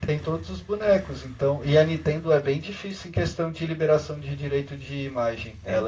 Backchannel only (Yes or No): No